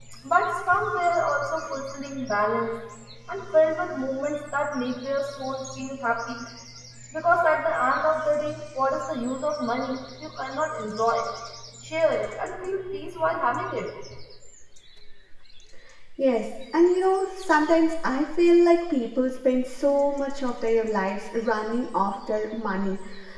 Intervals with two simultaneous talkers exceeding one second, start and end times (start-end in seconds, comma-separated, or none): none